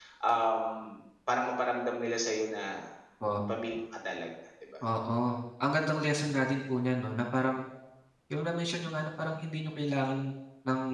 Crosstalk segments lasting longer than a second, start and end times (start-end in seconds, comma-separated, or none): none